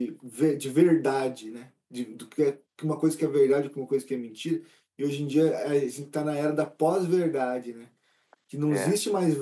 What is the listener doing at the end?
listening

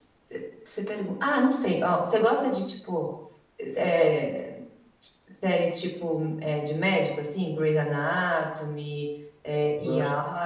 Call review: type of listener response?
taking over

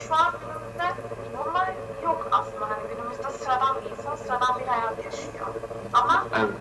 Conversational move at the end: listening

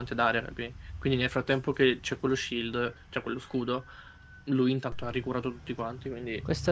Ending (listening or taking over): taking over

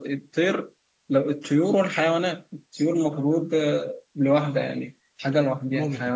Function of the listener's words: taking over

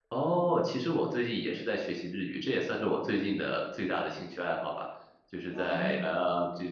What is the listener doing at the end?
listening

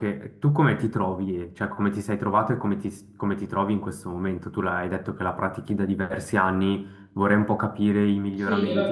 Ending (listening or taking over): taking over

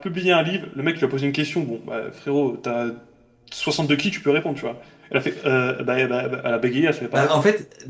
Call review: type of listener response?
taking over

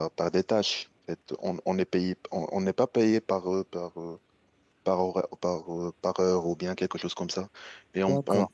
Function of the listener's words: listening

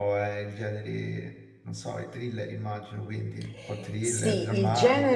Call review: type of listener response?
taking over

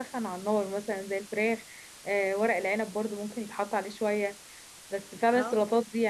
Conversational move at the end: listening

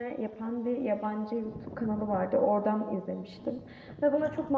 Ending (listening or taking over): listening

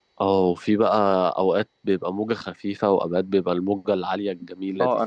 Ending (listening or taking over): taking over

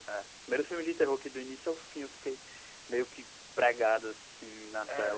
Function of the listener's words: taking over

